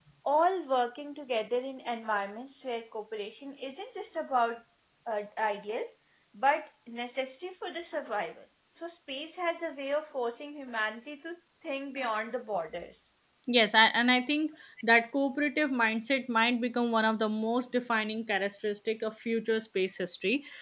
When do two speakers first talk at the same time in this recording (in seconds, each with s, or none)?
none